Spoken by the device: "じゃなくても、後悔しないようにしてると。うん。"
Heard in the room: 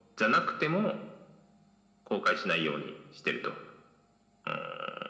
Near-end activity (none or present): none